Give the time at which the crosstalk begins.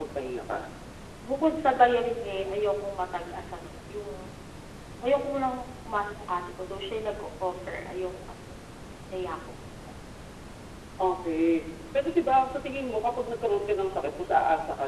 none

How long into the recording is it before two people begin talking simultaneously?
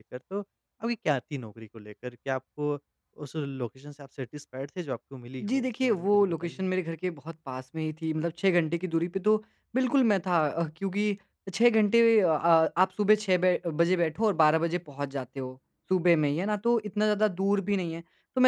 5.4 s

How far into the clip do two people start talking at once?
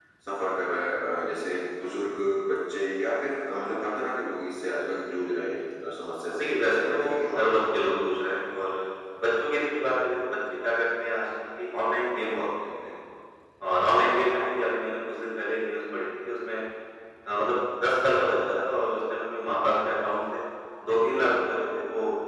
6.4 s

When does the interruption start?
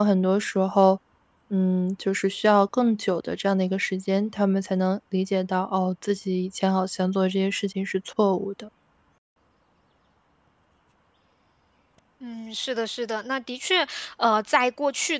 none

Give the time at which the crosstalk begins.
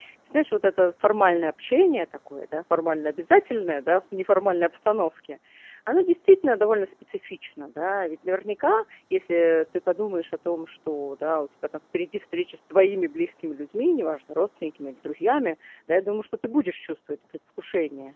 none

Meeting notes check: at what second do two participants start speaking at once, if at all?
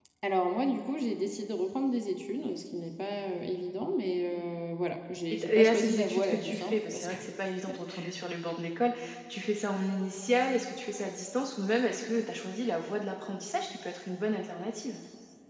5.3 s

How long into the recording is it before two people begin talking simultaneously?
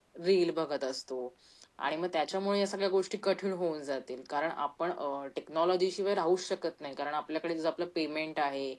none

